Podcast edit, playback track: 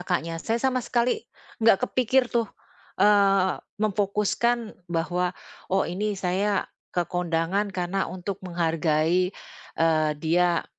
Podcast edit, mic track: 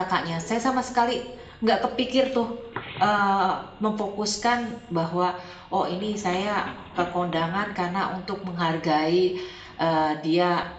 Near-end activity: none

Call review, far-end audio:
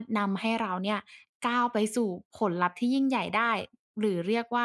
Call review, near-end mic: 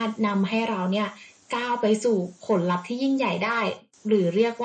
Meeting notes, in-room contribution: none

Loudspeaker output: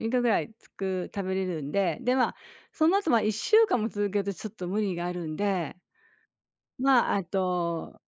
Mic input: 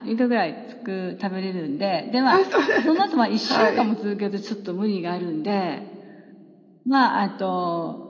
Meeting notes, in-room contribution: present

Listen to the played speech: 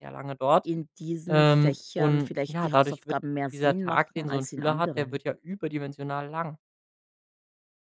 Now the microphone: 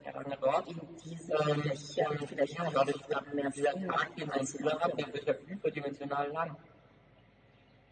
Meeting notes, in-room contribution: none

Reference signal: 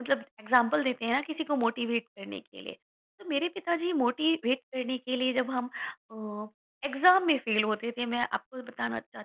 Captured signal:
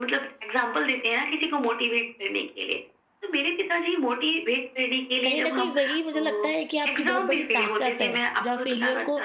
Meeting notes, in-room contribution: present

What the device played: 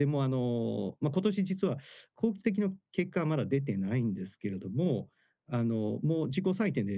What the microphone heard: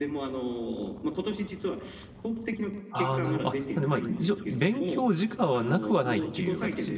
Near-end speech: present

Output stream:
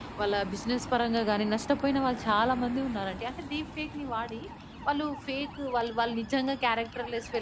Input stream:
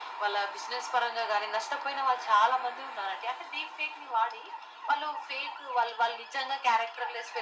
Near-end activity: none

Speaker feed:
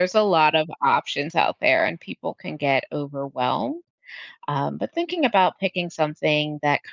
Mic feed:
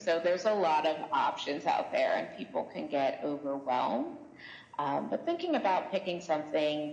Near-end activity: none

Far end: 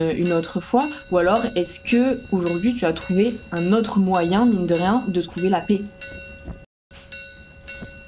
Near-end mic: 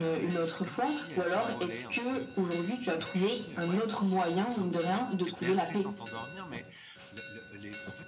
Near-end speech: present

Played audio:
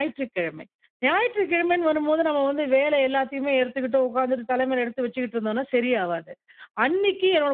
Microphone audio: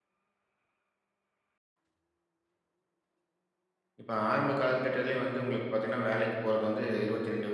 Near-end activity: present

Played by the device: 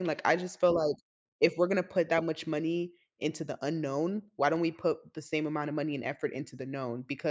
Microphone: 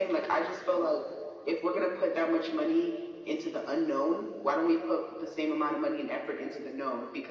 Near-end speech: none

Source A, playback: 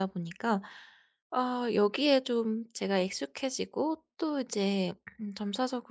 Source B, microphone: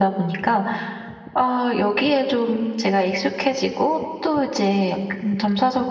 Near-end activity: none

